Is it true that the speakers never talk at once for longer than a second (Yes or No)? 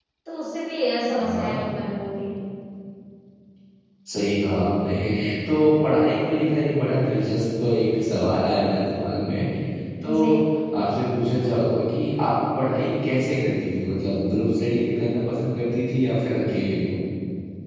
Yes